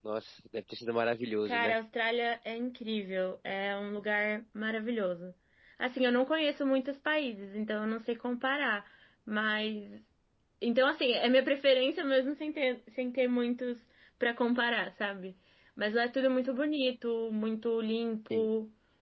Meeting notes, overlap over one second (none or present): none